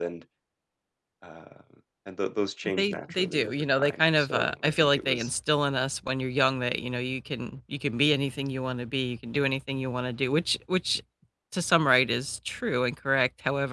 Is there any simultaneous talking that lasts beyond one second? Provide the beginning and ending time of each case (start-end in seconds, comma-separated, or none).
2.8-5.3